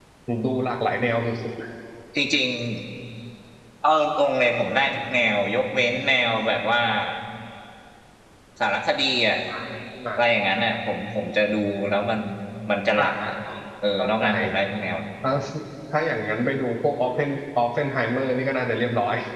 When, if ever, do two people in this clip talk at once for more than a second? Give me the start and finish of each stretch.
none

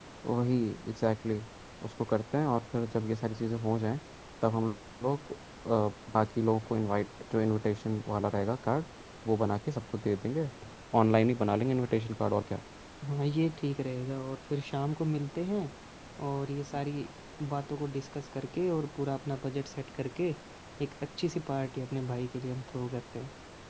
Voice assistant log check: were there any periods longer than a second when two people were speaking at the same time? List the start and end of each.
none

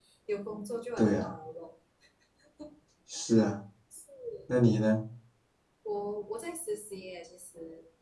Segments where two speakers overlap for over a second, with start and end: none

